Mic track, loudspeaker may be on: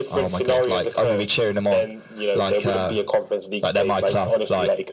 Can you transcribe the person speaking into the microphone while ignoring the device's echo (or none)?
none